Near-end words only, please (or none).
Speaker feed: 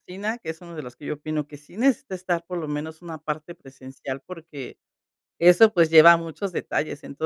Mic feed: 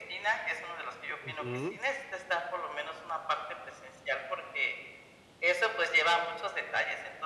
Ujú.